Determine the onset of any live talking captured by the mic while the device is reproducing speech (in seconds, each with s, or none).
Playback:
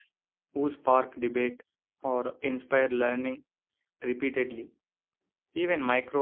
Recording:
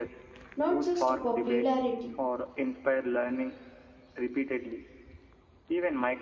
0.5 s